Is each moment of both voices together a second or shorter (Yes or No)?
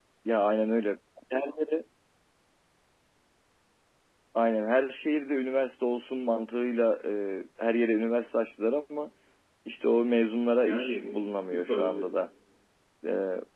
No